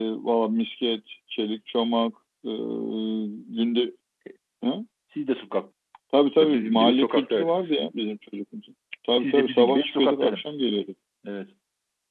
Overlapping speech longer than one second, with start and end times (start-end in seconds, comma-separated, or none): 6.5-7.7, 9.2-10.5